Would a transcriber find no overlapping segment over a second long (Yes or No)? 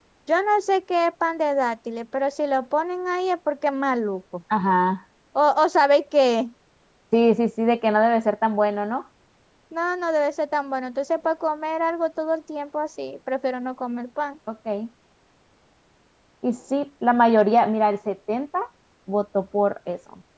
Yes